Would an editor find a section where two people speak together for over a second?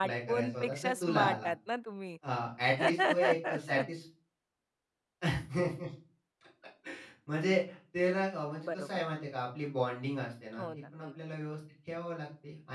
Yes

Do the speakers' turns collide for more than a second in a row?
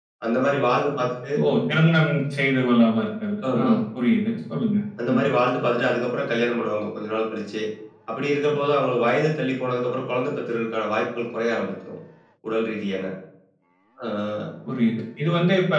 No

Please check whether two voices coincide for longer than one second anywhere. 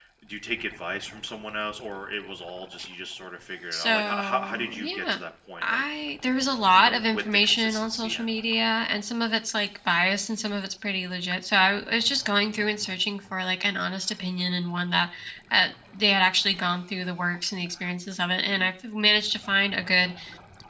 Yes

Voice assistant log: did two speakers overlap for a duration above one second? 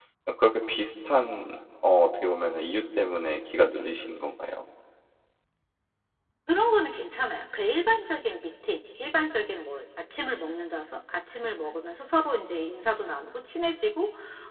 No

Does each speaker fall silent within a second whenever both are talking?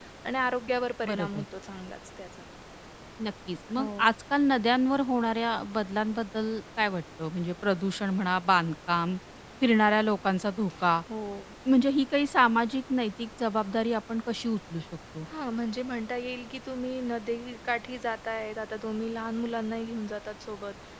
Yes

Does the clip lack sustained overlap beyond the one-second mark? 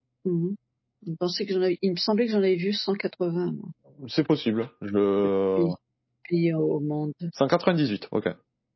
Yes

